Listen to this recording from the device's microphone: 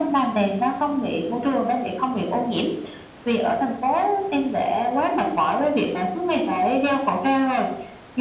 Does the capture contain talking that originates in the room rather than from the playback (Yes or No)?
No